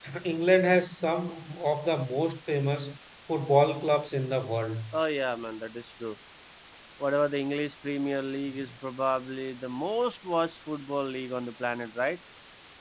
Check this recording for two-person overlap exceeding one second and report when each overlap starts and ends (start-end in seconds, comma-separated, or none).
none